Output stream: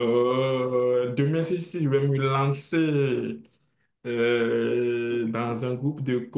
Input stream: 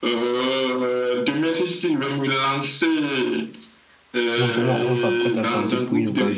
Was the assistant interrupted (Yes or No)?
Yes